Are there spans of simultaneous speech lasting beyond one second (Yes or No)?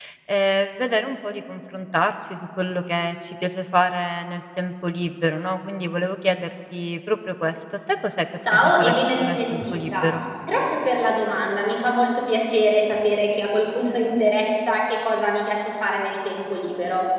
Yes